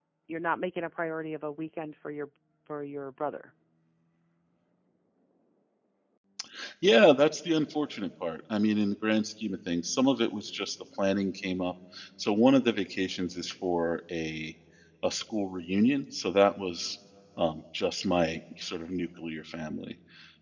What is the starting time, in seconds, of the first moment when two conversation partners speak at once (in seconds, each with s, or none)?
none